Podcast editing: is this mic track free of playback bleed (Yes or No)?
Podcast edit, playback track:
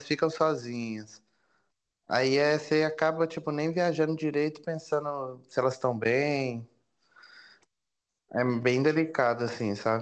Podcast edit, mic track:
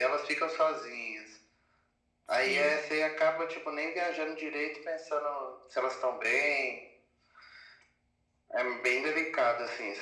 No